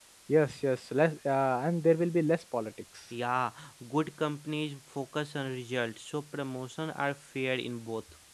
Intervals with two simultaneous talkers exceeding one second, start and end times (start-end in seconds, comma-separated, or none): none